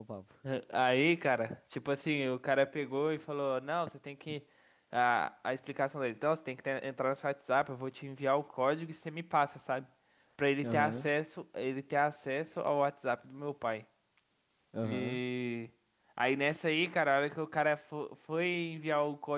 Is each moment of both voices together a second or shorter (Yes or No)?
Yes